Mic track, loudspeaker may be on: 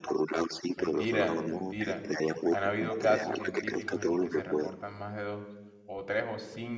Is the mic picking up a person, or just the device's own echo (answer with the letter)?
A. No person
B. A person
B